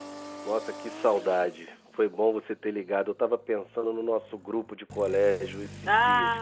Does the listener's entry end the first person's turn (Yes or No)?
Yes